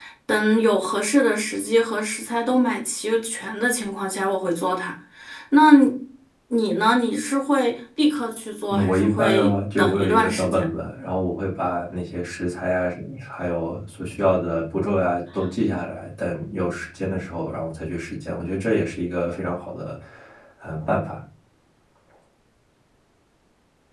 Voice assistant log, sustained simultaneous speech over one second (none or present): present